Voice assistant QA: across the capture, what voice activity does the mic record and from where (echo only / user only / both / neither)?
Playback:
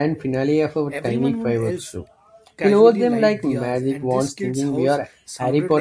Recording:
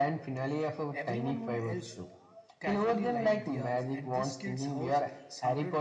echo only